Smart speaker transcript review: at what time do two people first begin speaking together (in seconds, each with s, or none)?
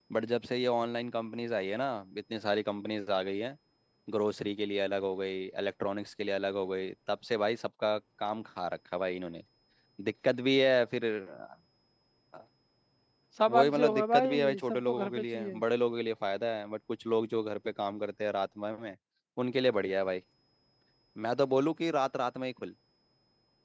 13.5 s